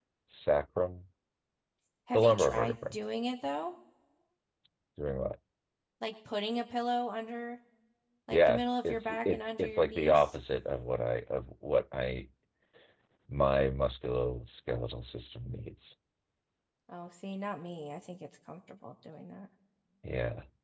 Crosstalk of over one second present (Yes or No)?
Yes